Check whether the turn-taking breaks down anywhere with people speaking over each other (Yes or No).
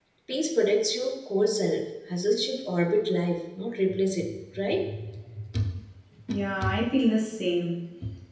No